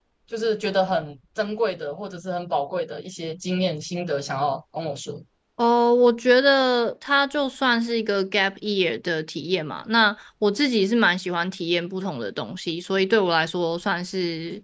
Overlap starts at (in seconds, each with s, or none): none